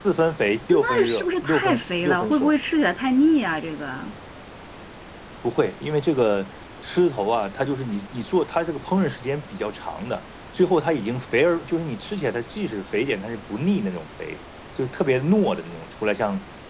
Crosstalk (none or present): present